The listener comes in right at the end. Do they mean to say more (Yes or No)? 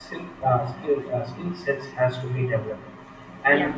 No